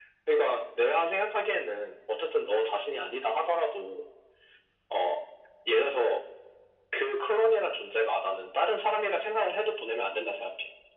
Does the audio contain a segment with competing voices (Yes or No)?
No